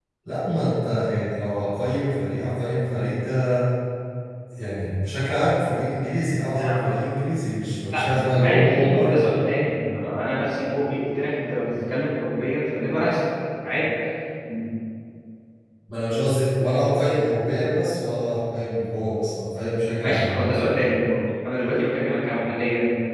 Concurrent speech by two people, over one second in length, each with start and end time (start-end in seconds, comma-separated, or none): 7.9-9.2